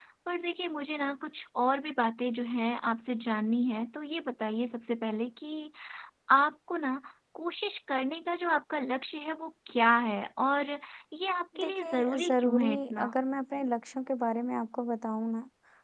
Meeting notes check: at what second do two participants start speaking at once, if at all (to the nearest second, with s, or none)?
12 s